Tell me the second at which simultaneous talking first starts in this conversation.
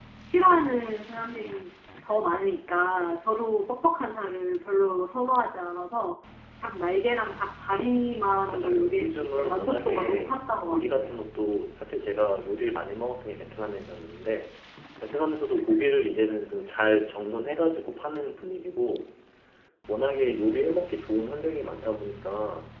8 s

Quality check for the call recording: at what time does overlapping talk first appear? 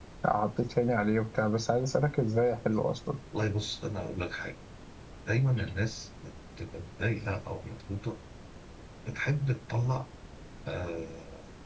none

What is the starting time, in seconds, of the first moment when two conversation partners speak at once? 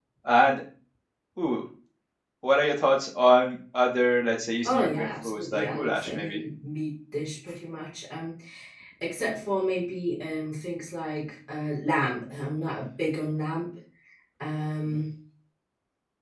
5 s

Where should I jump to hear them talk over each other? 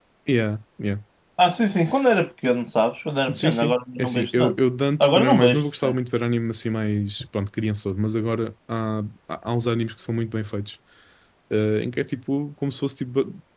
3 s

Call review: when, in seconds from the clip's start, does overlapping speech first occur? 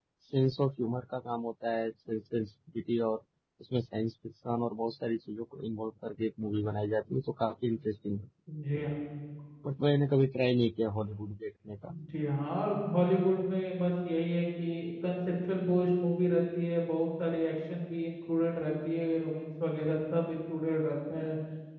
none

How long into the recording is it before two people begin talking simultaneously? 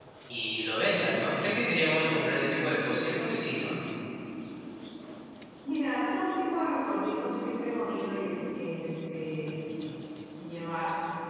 none

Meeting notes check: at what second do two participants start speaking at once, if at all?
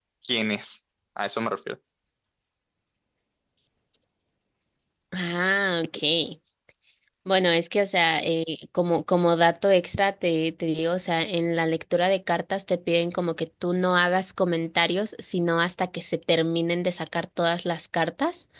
none

